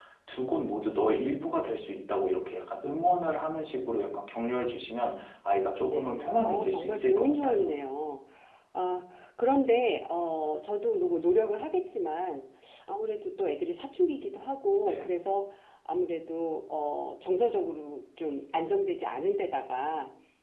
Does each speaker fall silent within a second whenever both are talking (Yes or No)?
No